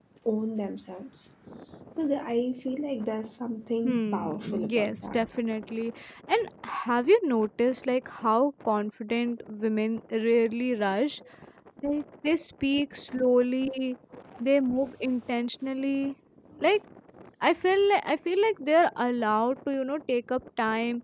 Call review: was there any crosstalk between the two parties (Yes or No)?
Yes